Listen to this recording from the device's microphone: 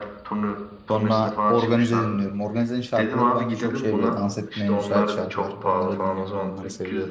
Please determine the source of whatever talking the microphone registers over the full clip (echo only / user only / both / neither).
both